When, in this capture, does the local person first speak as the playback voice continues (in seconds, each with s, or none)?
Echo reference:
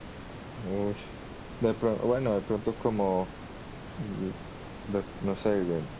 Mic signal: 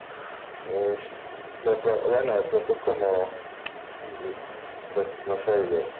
none